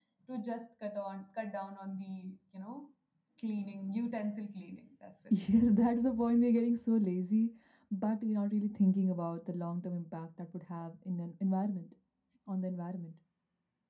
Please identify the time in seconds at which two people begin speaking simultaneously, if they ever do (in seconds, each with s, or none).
none